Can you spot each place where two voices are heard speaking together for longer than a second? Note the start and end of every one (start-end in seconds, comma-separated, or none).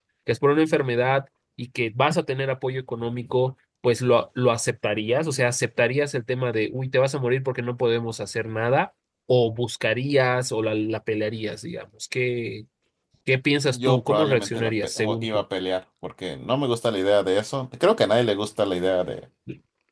13.7-15.4